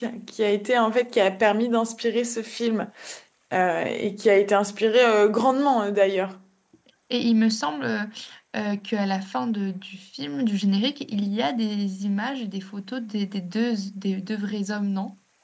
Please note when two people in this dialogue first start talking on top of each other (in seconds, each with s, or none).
none